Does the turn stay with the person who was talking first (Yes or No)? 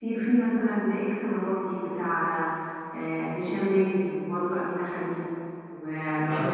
No